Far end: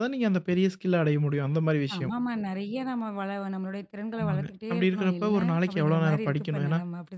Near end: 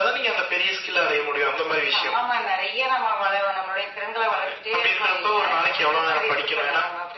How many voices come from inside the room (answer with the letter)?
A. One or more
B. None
B